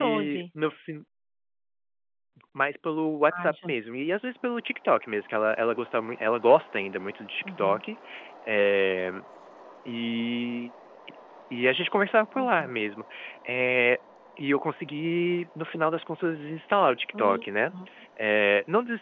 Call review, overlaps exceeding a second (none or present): none